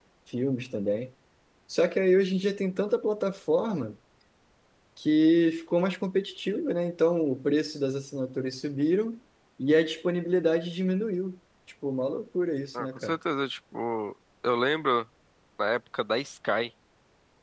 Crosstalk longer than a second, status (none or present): none